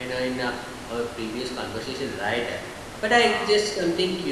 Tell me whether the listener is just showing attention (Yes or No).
Yes